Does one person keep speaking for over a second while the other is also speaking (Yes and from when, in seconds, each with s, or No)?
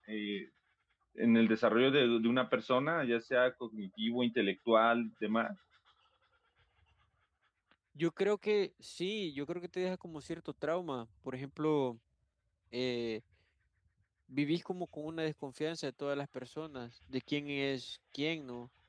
No